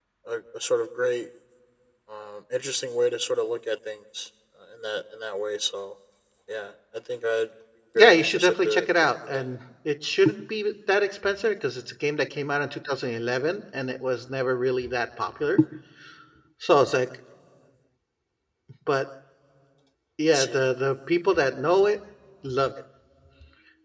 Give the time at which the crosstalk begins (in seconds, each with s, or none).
8.0 s